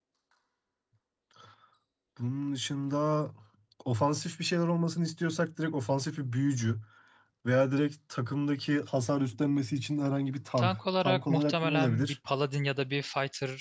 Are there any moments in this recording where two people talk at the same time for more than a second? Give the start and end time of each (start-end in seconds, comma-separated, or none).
10.6-12.2